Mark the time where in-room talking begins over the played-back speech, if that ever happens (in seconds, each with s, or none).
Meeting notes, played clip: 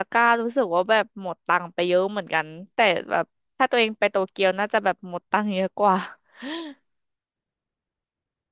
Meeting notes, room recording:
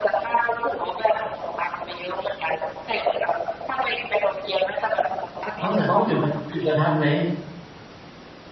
5.6 s